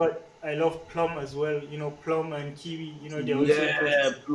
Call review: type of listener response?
taking over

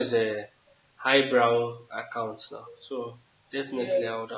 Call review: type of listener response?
listening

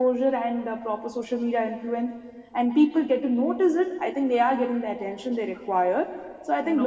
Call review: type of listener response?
listening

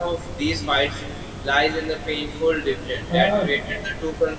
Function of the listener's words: listening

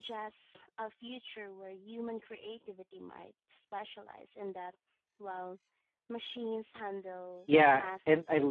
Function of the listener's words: taking over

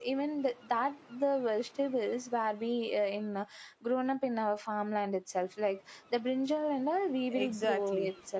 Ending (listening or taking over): taking over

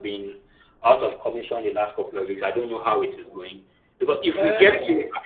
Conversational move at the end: taking over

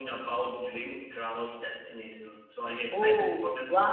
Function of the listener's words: taking over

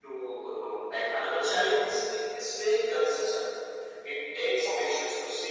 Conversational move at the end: listening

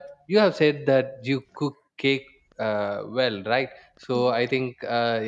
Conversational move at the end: listening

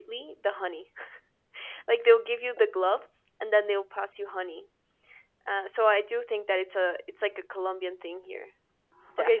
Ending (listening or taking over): taking over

